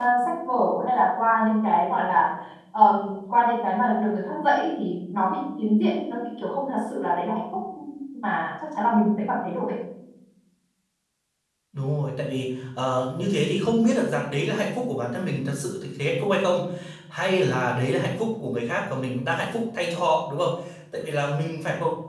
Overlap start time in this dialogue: none

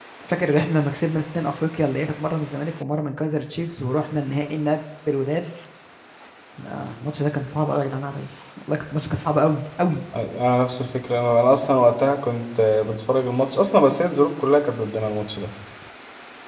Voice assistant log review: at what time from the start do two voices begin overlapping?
none

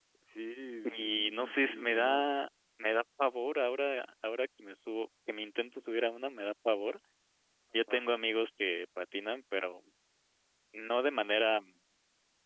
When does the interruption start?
1.0 s

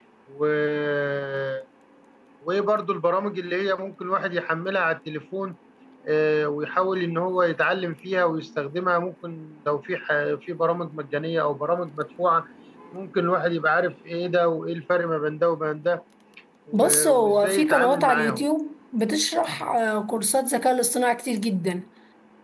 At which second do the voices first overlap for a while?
16.7 s

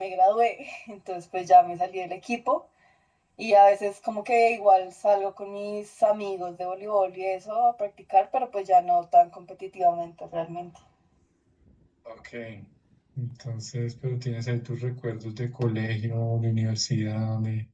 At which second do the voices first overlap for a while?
none

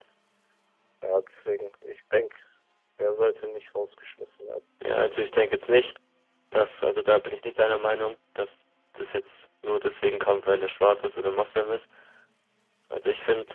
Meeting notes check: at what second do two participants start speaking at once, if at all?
none

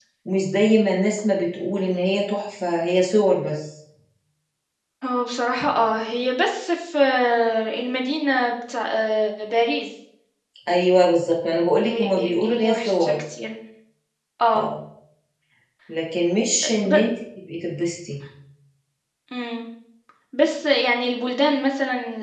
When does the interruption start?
11.8 s

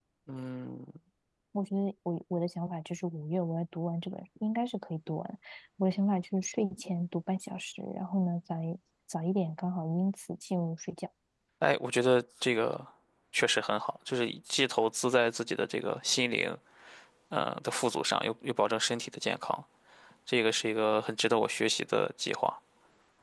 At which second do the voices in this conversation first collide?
none

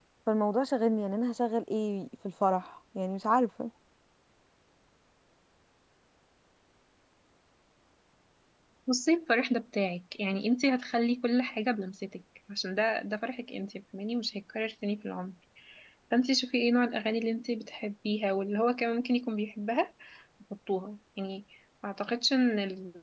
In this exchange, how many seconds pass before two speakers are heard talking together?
none

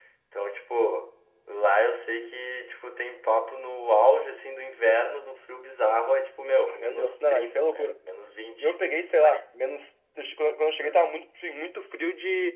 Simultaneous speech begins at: 6.7 s

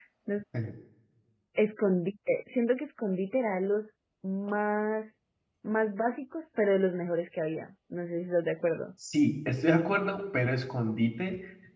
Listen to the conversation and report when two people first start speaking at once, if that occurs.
none

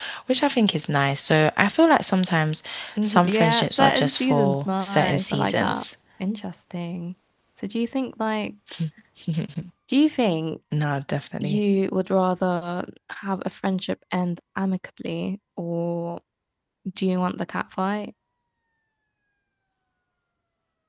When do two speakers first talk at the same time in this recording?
3.0 s

